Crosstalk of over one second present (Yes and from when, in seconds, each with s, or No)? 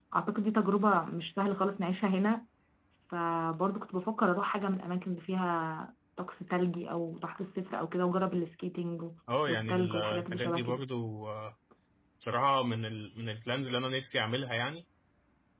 Yes, from 9.5 s